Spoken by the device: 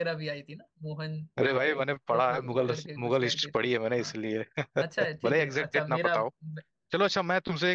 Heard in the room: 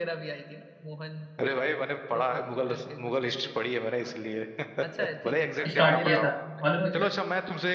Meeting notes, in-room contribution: present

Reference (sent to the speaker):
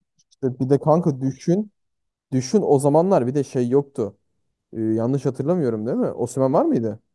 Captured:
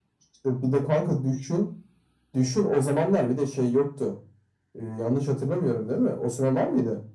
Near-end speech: none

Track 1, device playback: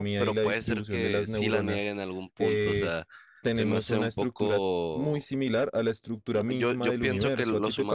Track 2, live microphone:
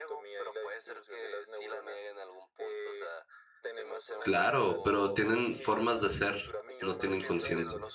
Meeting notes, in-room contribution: present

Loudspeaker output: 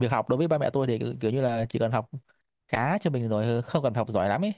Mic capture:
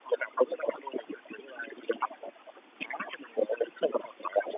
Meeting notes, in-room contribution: none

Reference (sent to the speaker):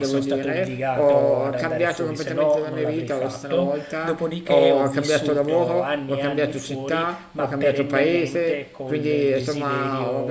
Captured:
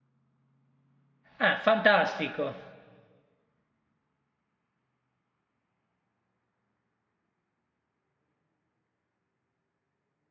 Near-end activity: present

